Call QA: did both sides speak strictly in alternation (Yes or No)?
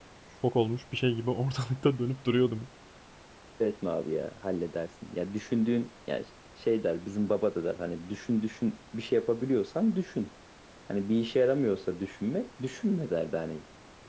Yes